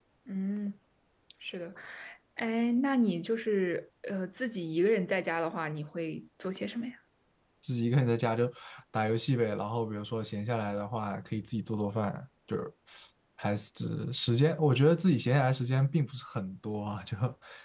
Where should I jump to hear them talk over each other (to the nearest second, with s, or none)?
none